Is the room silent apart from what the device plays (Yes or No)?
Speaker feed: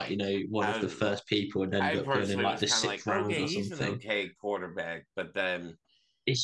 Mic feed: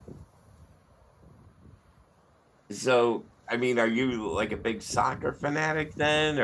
No